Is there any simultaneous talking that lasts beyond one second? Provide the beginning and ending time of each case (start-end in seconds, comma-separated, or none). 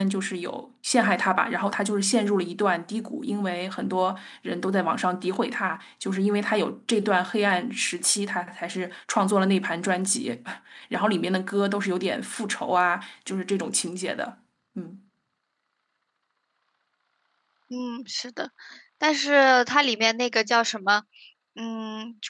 none